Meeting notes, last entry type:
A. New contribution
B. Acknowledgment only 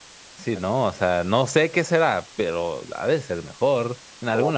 A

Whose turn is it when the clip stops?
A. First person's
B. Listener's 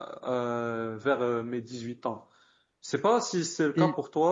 A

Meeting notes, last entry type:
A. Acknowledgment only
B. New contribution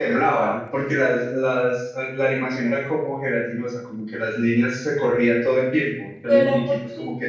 B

